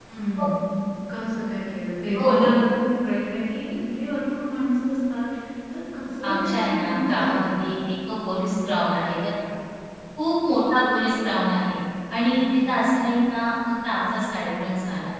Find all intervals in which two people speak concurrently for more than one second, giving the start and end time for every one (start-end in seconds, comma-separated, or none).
6.2-7.7